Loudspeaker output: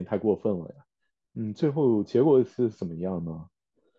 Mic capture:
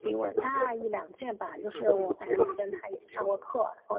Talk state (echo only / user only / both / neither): both